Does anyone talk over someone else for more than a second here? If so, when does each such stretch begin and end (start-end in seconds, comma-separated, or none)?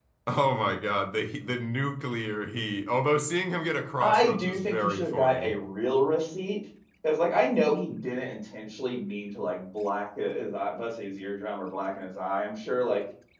4.0-5.6